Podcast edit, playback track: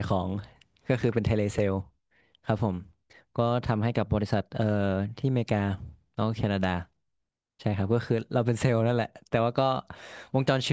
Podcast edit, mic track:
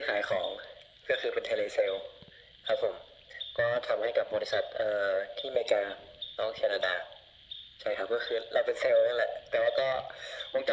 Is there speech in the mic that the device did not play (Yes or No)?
No